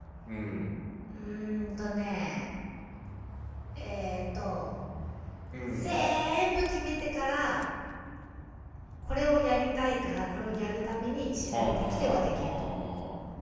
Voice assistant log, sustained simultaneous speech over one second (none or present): present